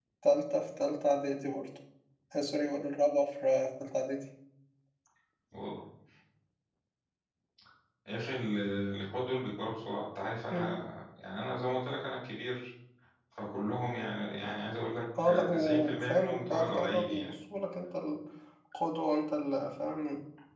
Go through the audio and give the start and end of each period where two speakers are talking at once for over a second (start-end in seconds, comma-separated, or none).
15.2-17.3